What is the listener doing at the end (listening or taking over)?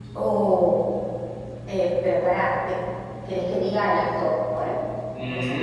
taking over